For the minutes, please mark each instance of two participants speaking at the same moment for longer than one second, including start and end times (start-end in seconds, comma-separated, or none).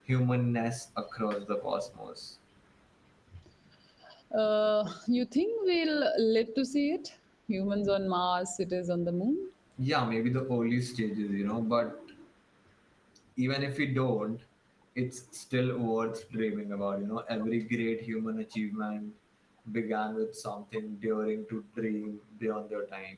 none